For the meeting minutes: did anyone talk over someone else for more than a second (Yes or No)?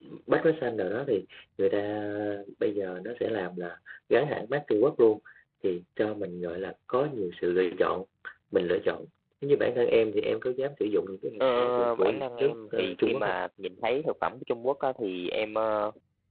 Yes